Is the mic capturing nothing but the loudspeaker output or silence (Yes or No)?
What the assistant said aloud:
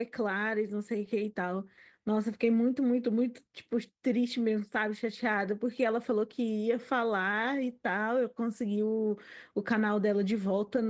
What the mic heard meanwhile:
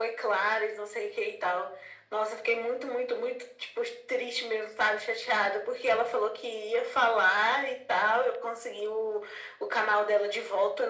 Yes